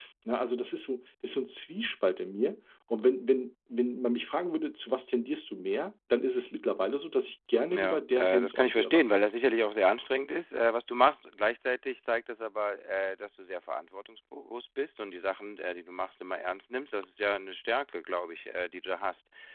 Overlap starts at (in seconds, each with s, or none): 7.7 s